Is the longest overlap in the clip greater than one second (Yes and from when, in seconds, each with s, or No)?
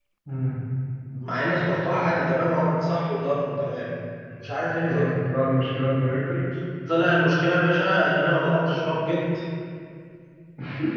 No